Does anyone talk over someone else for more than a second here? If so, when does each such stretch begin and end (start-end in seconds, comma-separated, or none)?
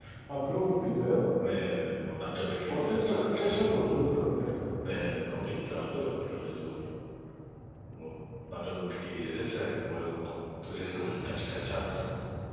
2.7-4.1